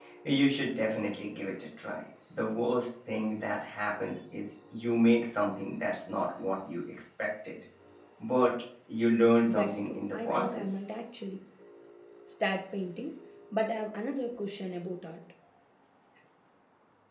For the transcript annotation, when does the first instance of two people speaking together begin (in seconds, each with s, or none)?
9.5 s